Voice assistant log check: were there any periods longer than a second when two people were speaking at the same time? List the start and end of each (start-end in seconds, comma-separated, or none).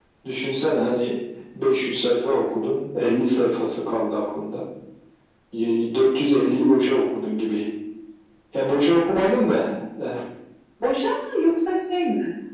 none